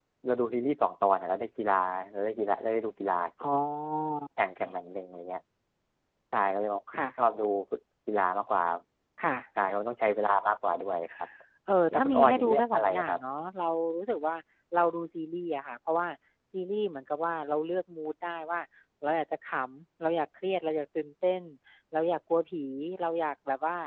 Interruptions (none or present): present